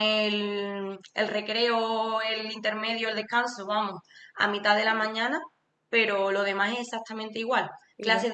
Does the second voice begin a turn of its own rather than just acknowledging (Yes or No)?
No